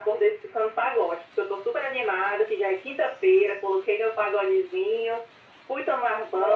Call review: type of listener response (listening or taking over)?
listening